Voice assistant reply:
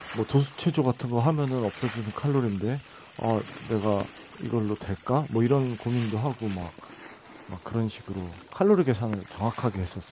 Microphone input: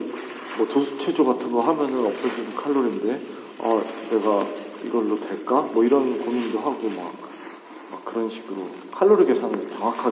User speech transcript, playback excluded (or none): none